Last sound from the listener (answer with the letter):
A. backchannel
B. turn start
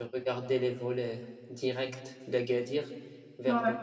A